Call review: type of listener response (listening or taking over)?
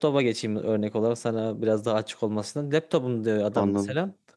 listening